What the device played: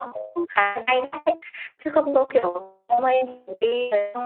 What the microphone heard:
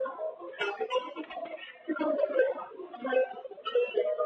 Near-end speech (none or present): none